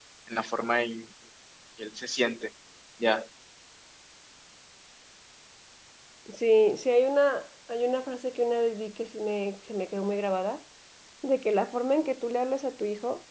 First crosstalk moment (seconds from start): none

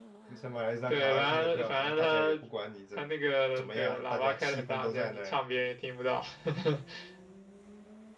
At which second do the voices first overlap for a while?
0.9 s

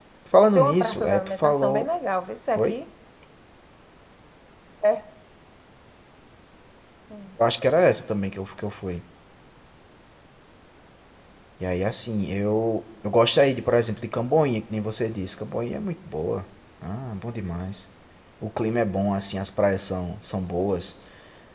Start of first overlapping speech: 0.6 s

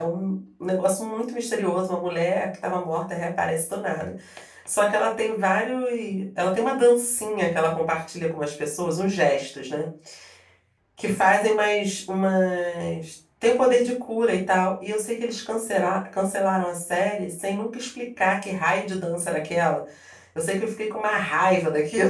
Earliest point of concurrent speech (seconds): none

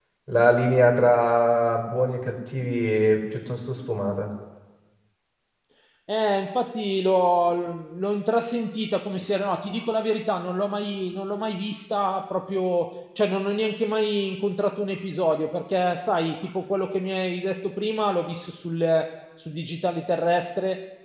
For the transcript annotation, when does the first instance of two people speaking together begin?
none

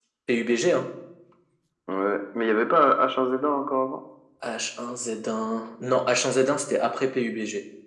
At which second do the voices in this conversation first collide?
none

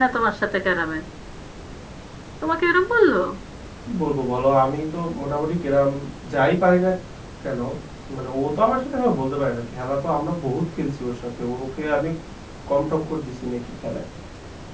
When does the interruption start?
none

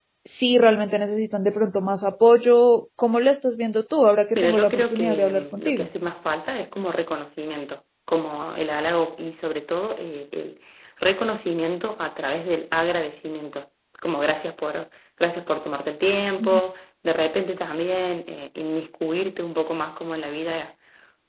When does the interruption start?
4.3 s

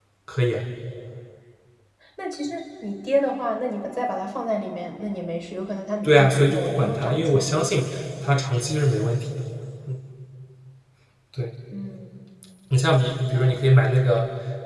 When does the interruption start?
6.0 s

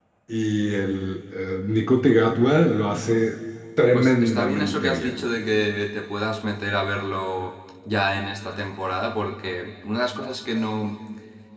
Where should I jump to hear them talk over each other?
3.9 s

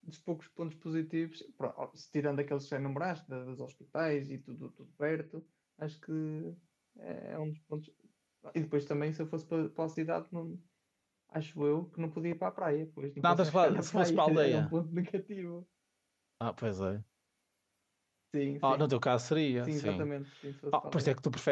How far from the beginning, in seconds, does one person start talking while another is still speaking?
13.2 s

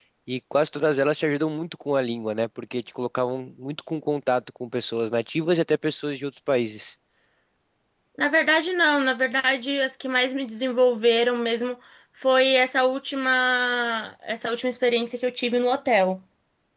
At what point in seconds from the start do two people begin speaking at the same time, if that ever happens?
none

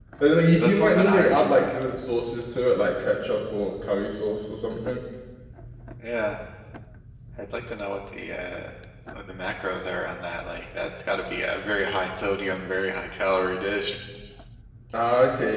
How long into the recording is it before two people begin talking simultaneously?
0.5 s

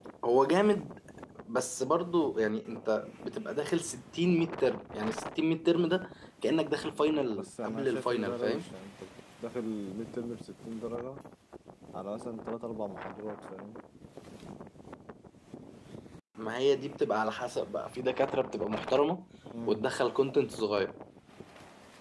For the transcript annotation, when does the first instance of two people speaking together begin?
6.9 s

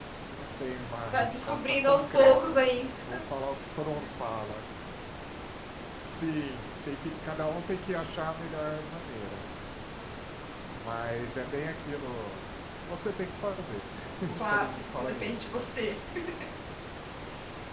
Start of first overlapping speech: 1.1 s

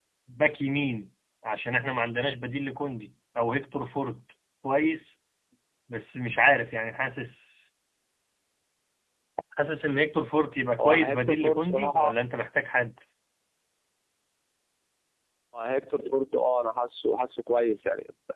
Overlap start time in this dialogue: 10.8 s

